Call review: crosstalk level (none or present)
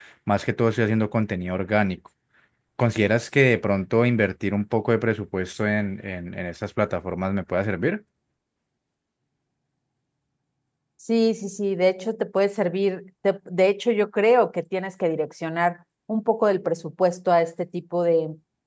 none